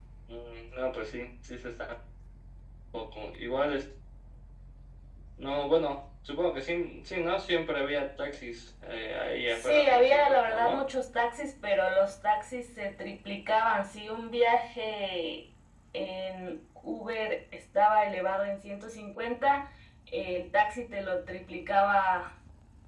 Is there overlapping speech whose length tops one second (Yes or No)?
Yes